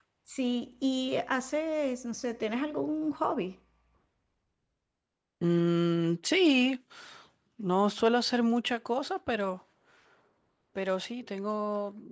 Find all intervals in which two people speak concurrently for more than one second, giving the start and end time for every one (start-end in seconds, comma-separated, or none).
none